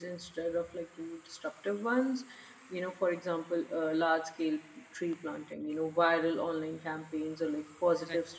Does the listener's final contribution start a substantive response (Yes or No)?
No